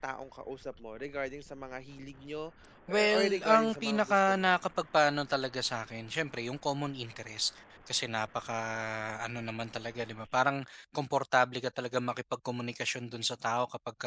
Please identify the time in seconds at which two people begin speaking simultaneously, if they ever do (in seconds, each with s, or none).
2.9 s